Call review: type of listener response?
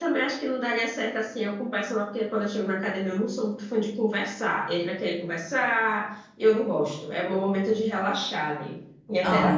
taking over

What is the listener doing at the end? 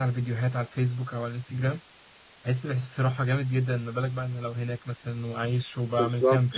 taking over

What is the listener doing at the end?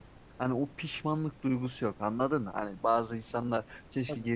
listening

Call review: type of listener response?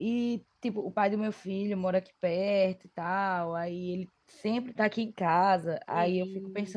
listening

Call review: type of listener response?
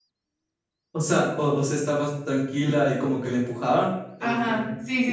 taking over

